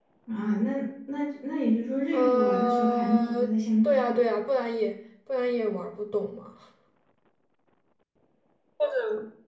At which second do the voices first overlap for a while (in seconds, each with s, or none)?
2.1 s